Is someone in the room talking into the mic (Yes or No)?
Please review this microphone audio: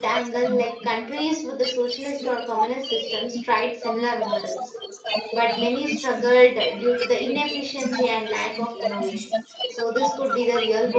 Yes